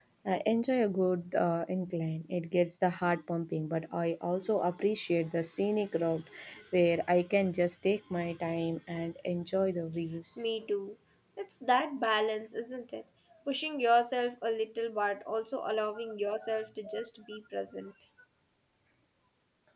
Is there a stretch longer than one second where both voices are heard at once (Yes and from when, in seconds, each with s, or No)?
No